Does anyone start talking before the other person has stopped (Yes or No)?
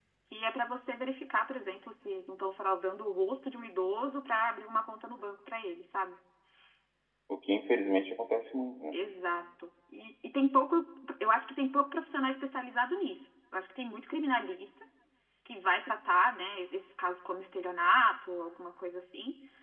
No